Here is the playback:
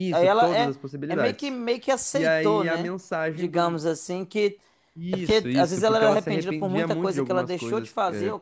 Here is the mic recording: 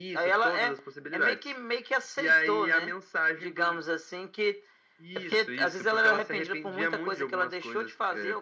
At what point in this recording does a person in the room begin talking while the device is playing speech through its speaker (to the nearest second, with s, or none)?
none